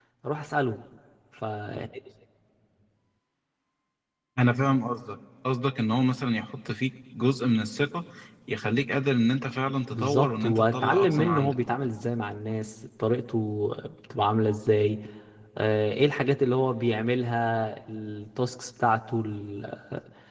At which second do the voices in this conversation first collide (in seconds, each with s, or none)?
9.9 s